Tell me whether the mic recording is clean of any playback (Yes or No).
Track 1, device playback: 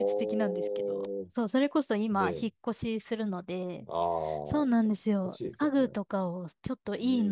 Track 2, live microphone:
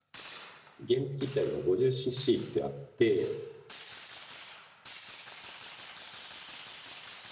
Yes